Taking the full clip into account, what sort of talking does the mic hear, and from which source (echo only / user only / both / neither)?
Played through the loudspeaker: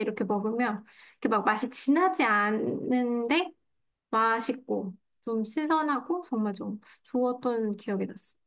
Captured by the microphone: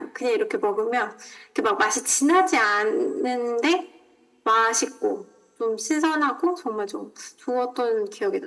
echo only